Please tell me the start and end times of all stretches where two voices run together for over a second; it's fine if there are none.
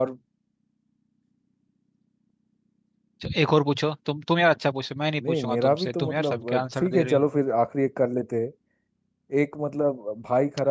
5.2-7.3

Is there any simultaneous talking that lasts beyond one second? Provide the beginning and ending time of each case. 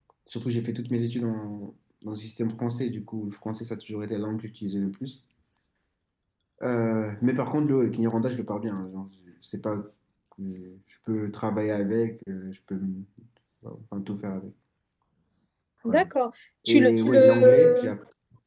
16.7-17.9

